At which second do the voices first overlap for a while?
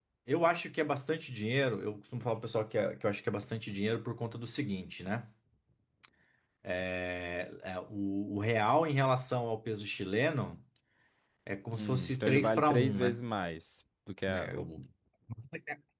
11.8 s

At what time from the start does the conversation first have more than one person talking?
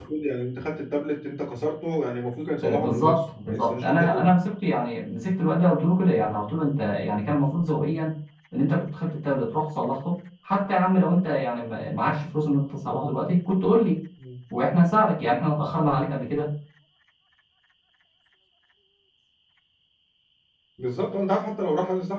2.6 s

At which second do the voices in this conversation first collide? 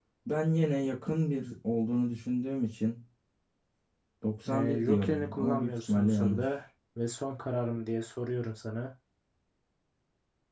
4.5 s

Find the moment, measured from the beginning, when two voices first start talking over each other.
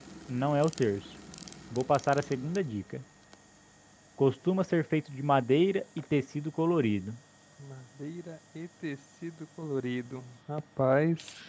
none

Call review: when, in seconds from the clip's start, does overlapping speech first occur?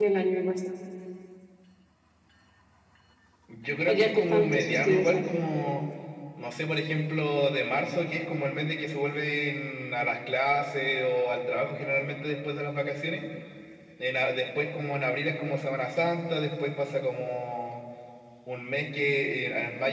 3.8 s

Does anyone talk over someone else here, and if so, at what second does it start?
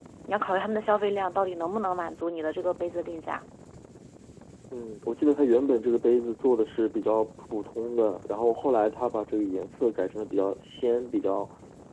none

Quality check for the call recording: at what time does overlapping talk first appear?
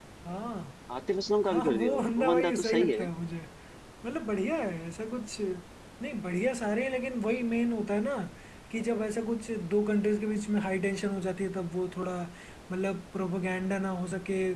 1.4 s

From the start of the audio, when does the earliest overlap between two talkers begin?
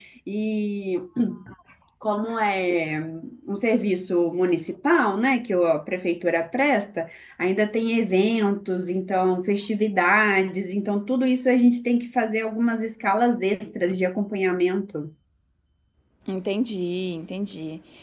none

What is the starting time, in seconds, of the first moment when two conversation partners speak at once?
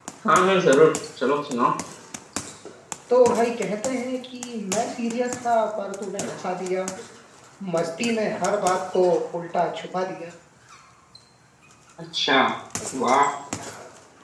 none

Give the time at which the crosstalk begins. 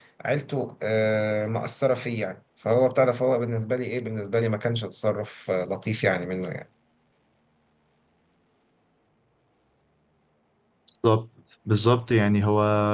none

